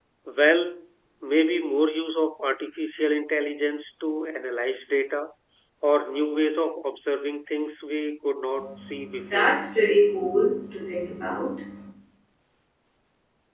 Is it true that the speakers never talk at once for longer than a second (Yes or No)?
Yes